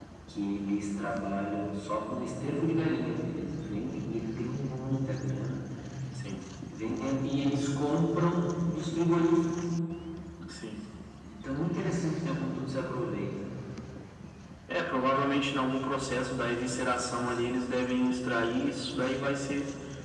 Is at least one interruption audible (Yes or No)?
No